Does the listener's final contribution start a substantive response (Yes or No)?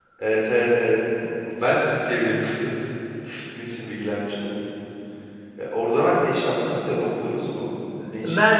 Yes